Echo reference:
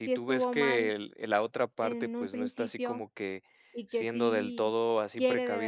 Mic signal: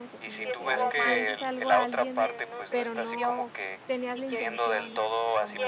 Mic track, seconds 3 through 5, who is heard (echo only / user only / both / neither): both